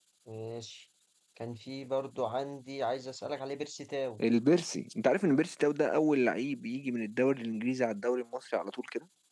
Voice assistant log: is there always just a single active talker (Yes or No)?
Yes